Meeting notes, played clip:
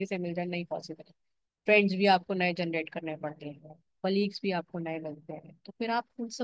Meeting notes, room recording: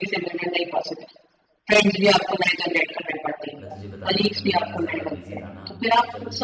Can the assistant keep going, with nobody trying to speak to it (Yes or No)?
No